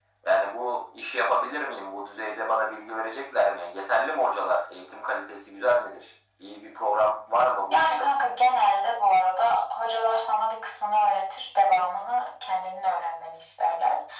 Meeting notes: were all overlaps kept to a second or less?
Yes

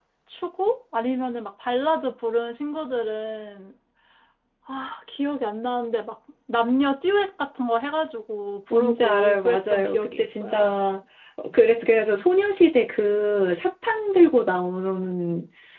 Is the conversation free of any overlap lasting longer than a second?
No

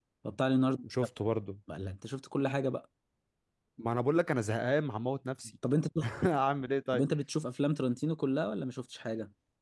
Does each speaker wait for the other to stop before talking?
Yes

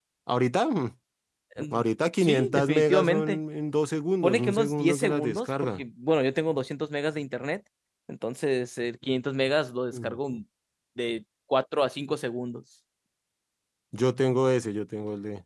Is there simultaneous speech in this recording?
Yes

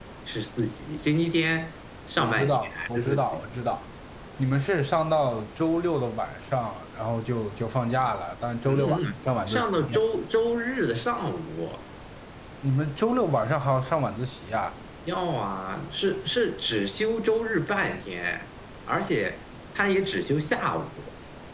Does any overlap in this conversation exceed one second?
Yes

